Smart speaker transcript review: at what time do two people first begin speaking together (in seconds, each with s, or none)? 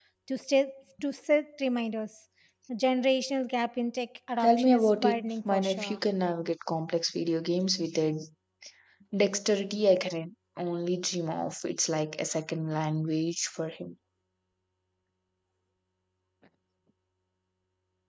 4.4 s